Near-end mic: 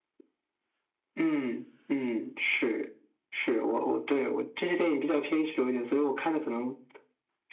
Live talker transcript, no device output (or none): none